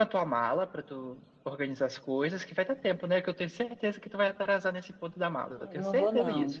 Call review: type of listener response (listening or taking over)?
taking over